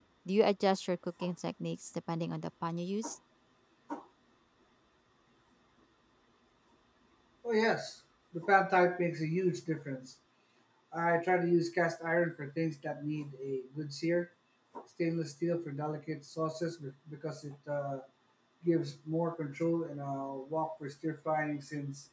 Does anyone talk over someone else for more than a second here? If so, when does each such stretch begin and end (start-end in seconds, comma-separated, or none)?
none